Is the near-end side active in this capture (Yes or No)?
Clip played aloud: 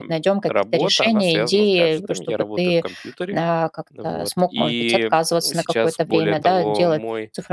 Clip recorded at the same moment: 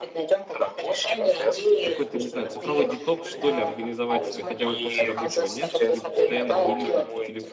Yes